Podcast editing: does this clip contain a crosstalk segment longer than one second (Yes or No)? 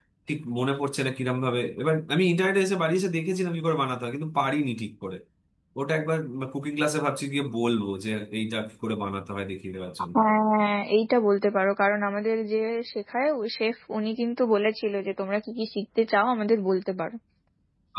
No